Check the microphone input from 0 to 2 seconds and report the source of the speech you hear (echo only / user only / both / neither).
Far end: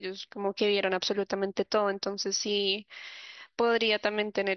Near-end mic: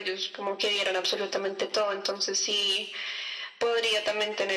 echo only